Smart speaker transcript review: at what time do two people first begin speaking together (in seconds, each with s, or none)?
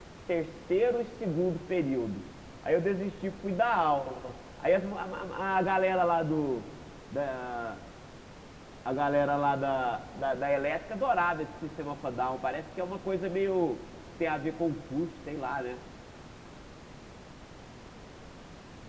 none